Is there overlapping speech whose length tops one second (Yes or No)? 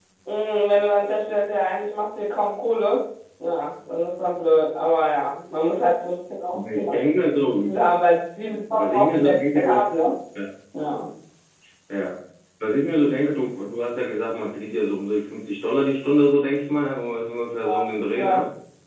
Yes